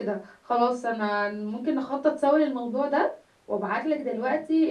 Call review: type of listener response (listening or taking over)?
listening